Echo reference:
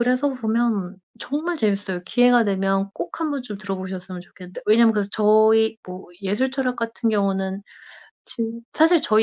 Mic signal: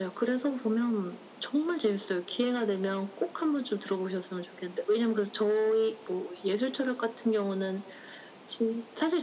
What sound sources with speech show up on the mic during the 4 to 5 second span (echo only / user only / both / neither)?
echo only